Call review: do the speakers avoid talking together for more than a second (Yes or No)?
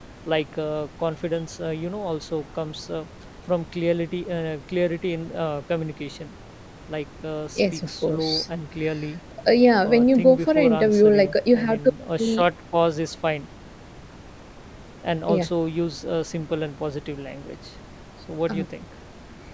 No